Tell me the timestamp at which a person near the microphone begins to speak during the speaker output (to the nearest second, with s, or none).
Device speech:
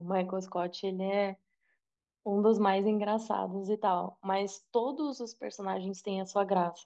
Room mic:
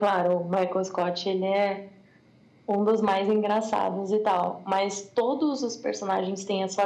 none